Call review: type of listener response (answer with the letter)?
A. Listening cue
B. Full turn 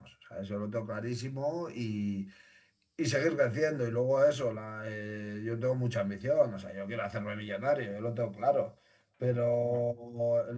A